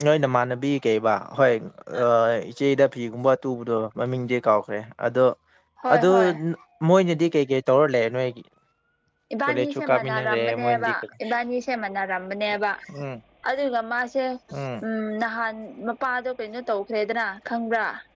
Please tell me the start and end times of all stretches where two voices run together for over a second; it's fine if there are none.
9.5-10.9

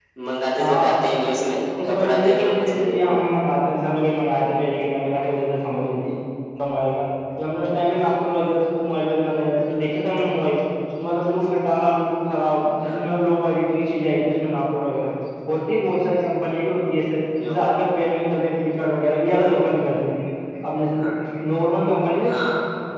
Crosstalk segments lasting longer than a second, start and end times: 1.8-3.2

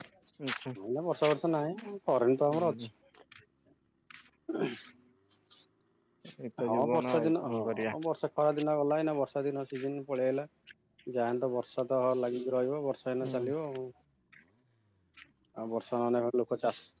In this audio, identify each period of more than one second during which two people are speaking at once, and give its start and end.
6.7-8.0

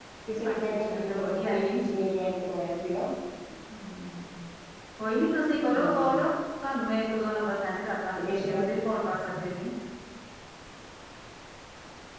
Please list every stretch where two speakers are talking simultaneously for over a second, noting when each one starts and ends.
0.5-1.8

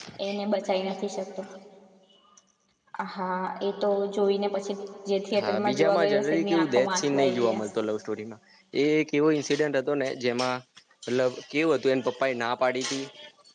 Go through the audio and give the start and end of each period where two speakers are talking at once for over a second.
5.4-7.7

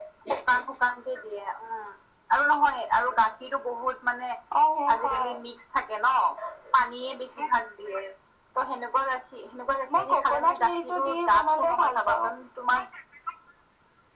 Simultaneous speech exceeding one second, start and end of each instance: 9.9-12.3

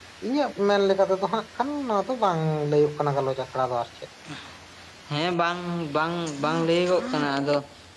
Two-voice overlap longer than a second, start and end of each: none

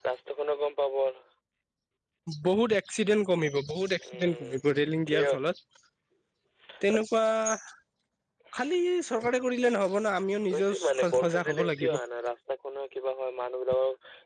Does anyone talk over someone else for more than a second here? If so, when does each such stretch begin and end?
10.5-12.0

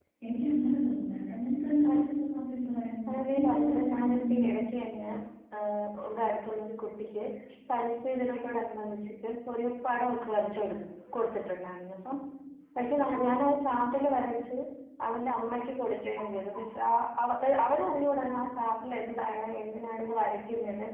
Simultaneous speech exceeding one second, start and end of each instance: 3.1-4.4

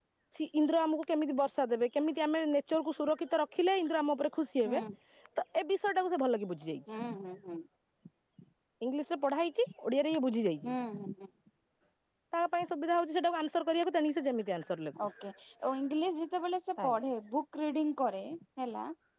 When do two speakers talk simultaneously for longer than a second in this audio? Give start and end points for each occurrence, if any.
none

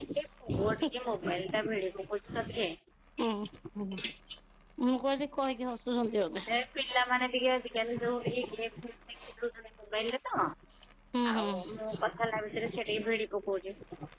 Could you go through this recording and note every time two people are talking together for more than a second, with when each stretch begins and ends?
none

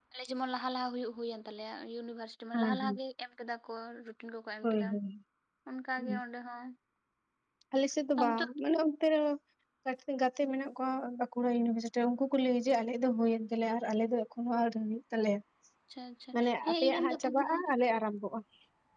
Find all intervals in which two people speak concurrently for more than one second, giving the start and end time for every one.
16.3-17.7

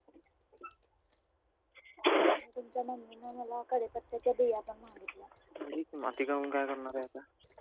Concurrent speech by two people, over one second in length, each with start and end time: none

